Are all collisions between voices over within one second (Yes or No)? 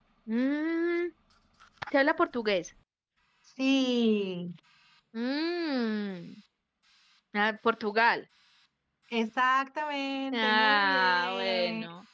No